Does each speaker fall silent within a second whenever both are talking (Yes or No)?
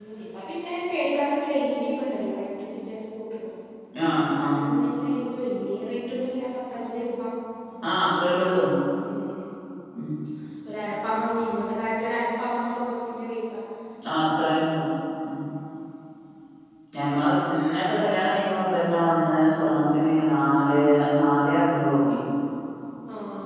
Yes